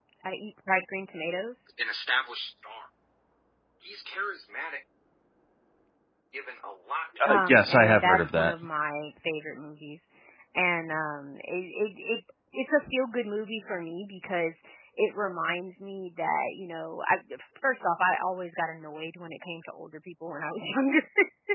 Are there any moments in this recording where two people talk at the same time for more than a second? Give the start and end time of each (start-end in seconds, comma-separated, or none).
7.3-8.5